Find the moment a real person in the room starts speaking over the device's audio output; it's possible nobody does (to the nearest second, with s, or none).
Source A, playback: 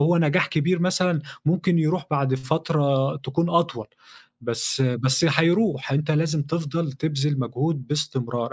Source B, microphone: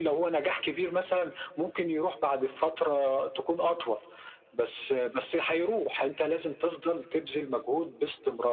none